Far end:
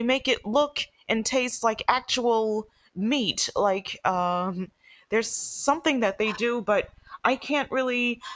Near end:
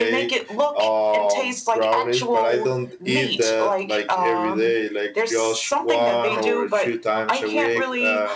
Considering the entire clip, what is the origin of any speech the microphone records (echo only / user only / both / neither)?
both